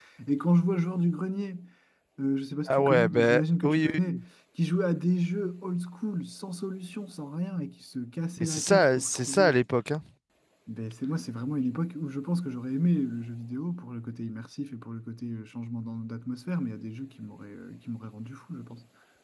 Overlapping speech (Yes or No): Yes